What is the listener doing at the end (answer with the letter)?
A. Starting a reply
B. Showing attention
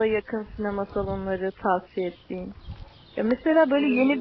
B